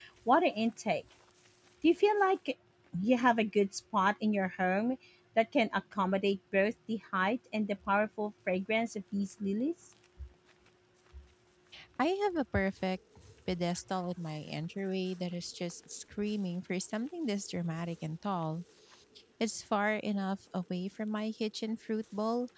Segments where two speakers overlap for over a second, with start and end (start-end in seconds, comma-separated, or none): none